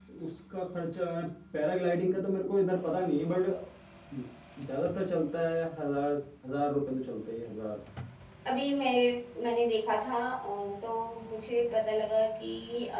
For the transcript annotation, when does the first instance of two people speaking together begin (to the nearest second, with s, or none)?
none